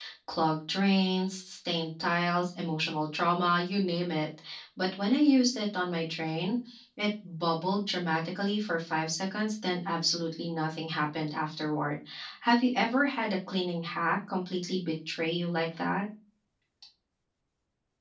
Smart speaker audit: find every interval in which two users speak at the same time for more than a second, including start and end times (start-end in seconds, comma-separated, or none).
none